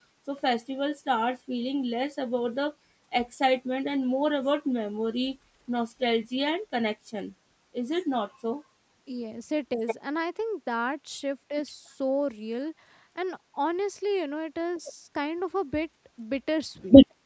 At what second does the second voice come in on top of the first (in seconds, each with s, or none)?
none